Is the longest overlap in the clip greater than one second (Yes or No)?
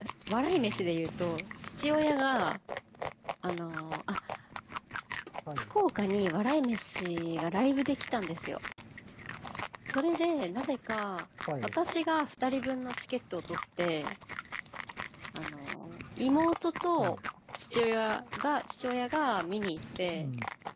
No